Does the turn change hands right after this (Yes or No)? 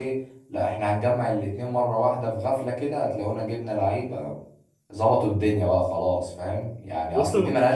No